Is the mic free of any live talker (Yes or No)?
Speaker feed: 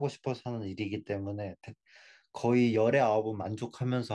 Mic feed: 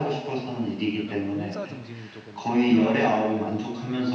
No